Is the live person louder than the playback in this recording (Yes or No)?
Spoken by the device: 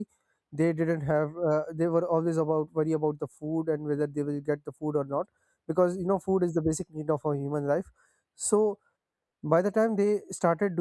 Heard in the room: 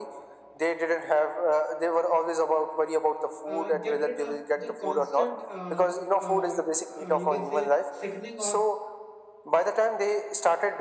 No